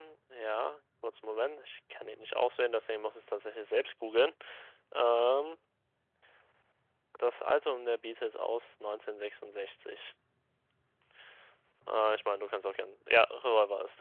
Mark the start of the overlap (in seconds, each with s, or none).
none